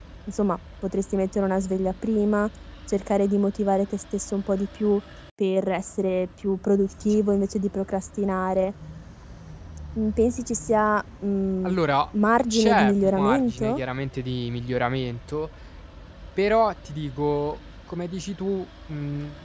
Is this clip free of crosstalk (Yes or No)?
No